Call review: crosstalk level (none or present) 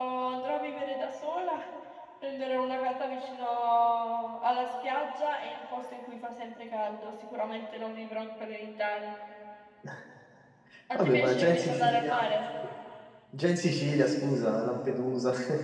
present